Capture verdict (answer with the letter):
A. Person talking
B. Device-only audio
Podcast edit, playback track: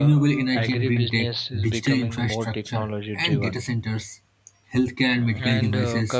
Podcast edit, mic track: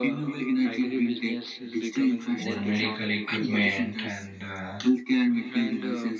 A